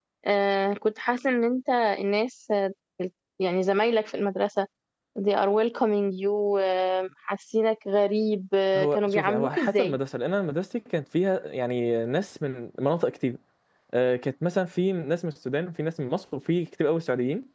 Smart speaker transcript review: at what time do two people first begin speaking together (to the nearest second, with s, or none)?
9 s